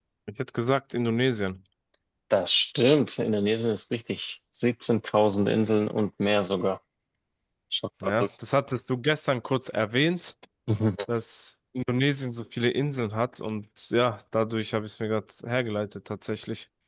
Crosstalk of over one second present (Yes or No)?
No